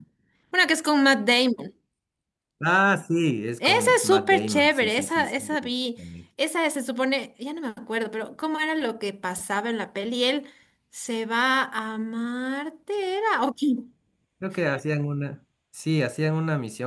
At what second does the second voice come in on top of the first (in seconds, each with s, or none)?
3.6 s